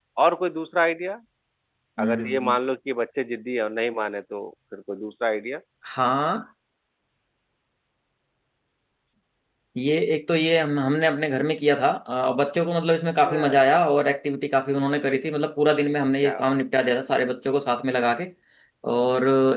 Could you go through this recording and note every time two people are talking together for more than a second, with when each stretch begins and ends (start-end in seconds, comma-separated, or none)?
none